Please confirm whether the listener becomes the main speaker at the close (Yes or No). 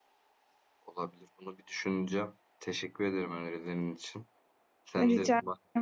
No